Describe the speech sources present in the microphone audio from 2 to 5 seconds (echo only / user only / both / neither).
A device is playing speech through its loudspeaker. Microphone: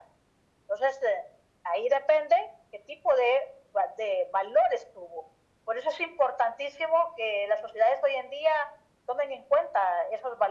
echo only